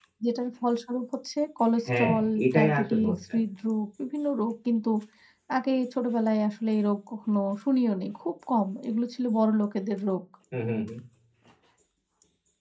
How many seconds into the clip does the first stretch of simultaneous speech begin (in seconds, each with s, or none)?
1.8 s